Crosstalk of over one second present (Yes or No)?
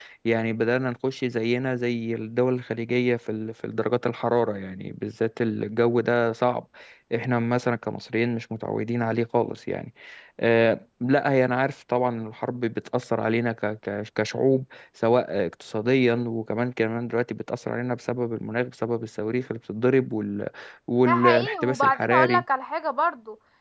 Yes